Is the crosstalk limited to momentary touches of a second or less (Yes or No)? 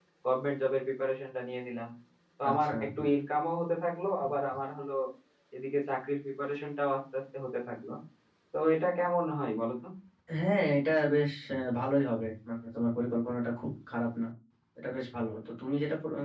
Yes